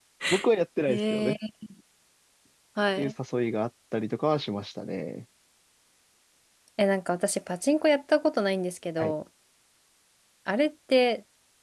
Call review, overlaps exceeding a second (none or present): none